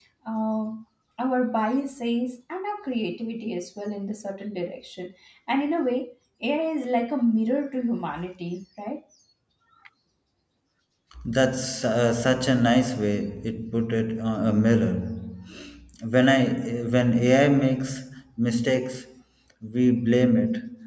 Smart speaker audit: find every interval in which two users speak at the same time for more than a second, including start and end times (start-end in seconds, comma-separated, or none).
none